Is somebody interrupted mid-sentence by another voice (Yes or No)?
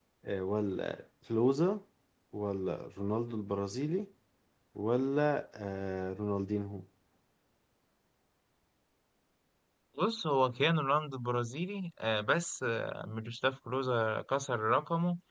No